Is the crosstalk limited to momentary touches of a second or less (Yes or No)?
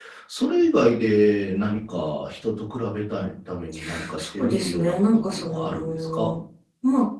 No